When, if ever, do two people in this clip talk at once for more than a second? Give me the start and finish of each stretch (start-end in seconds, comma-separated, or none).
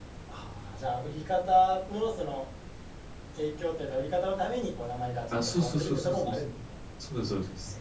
5.3-6.5